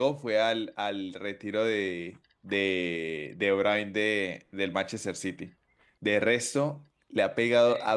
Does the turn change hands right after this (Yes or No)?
No